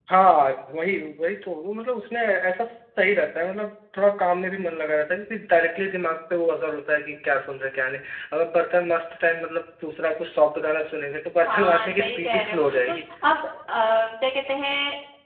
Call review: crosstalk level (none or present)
present